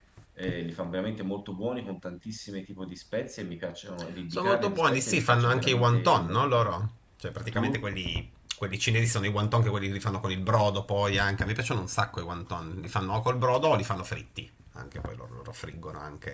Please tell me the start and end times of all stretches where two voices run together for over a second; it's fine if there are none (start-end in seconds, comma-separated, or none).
4.3-6.7